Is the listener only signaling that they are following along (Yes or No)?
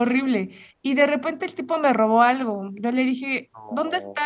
Yes